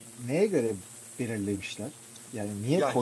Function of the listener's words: taking over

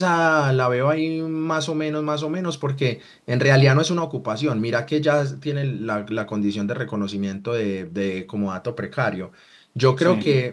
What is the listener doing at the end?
listening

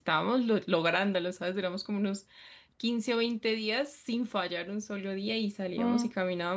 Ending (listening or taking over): listening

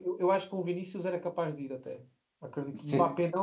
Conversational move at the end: listening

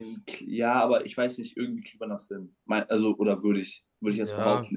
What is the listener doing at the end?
taking over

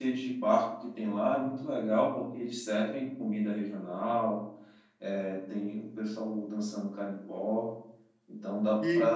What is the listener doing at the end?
taking over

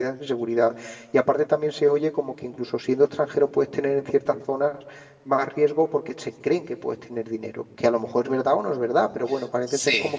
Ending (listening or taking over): listening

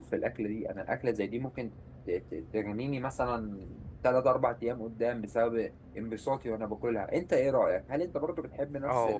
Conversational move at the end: taking over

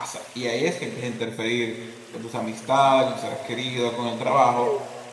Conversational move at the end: taking over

